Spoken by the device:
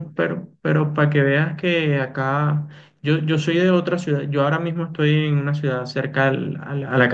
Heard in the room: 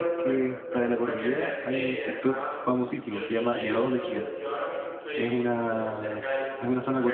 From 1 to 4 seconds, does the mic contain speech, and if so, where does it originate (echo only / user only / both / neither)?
both